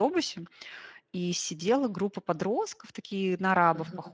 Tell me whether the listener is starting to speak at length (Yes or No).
No